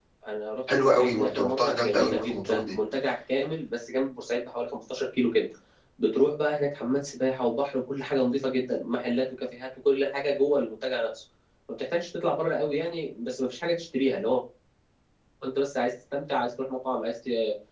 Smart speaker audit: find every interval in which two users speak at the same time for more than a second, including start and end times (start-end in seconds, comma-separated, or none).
0.7-2.7